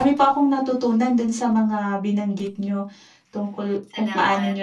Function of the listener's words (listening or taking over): listening